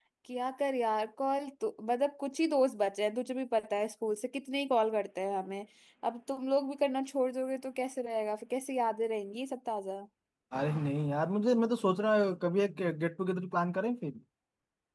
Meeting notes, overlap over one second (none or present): none